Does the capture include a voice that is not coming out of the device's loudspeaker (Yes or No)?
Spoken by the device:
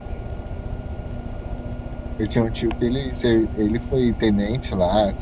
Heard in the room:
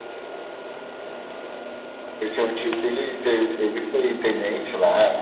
No